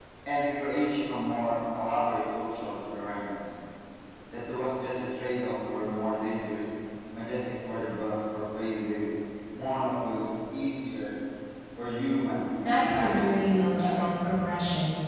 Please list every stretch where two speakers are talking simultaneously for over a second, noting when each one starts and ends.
12.6-14.1

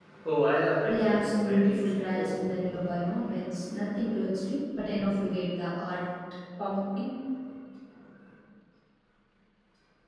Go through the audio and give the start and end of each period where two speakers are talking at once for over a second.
0.8-2.3

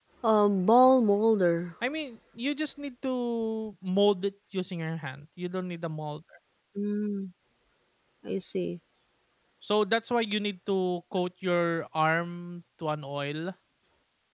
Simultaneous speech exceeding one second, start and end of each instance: none

